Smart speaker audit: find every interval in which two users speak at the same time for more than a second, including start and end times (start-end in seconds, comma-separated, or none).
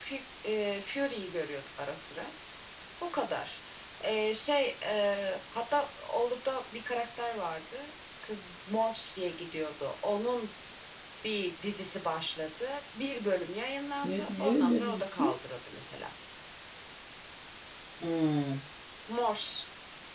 14.0-15.4